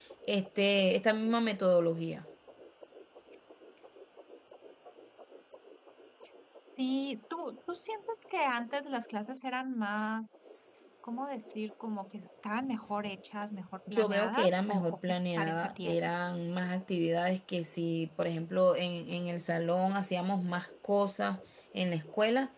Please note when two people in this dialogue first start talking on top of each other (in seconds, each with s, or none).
13.9 s